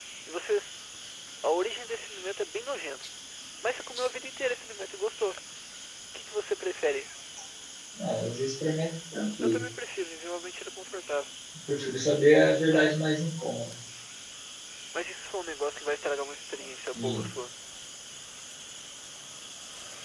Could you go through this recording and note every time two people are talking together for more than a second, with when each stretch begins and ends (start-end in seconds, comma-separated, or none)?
none